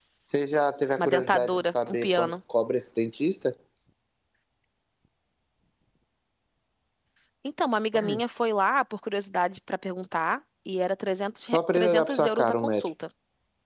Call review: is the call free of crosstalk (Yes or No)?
No